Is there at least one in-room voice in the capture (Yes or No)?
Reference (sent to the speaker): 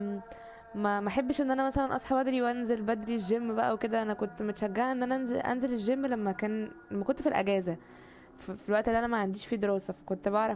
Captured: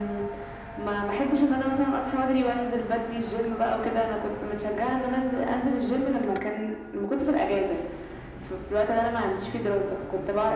No